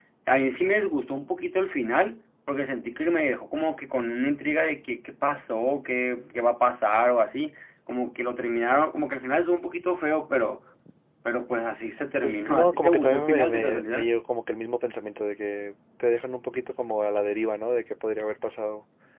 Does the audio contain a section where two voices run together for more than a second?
Yes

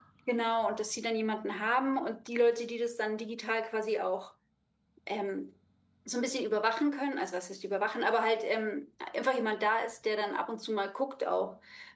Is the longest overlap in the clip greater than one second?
No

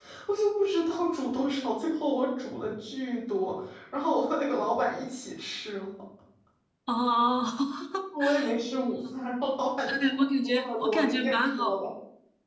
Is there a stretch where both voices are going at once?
Yes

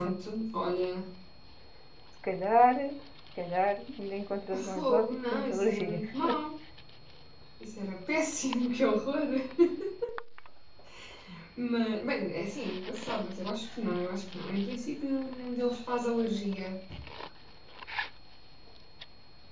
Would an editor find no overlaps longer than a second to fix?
No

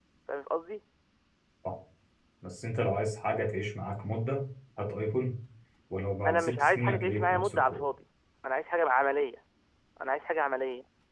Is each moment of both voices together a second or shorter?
No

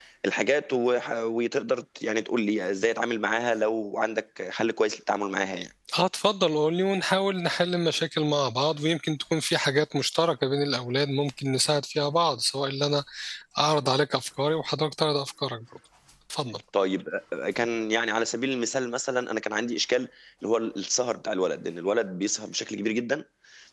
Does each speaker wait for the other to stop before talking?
Yes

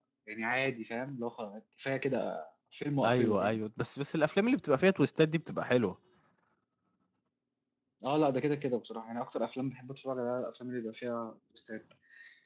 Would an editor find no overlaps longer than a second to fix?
Yes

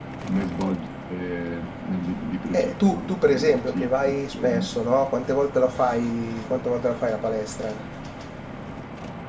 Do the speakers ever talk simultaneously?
Yes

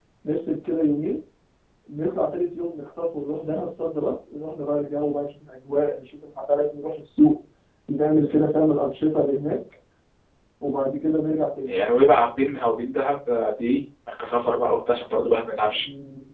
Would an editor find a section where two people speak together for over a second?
No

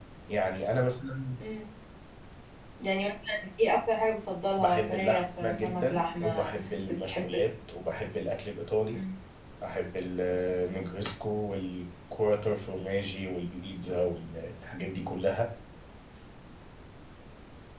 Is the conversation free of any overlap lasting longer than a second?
No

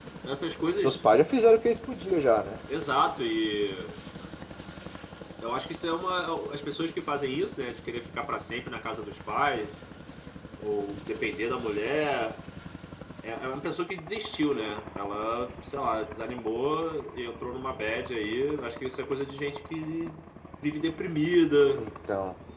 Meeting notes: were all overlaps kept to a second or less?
Yes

